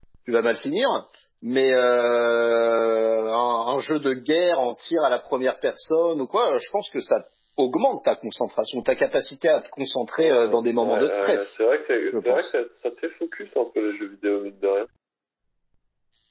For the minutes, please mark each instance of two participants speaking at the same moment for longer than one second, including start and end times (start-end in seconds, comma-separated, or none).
10.2-11.5